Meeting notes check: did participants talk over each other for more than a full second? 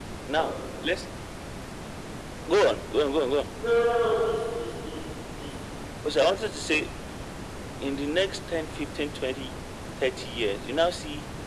No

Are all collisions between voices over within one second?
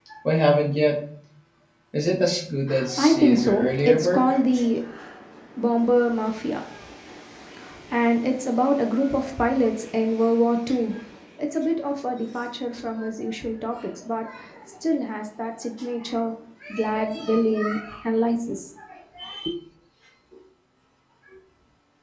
No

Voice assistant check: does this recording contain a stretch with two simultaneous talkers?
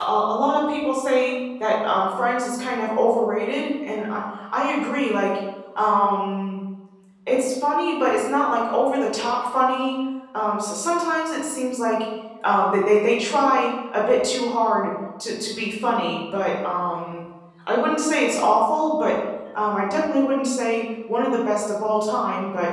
No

